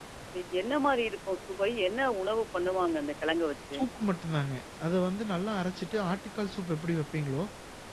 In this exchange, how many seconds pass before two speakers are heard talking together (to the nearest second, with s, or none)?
none